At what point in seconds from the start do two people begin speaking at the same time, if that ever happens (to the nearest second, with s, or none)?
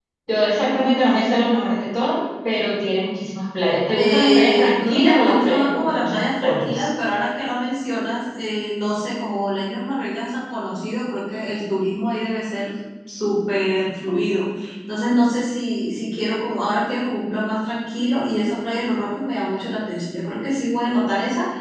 4 s